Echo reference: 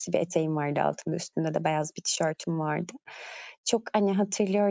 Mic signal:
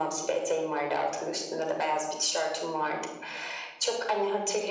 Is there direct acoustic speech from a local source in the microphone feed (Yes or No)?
No